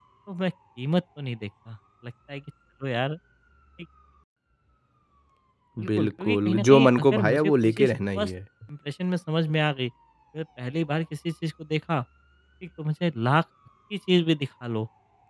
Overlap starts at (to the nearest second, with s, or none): 6 s